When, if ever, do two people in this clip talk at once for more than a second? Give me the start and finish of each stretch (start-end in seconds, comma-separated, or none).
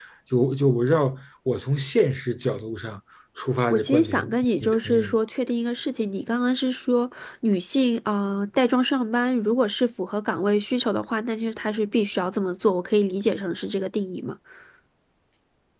3.7-5.2